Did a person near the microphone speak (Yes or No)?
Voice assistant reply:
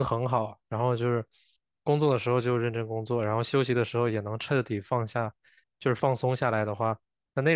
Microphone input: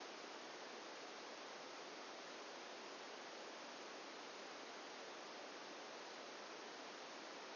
No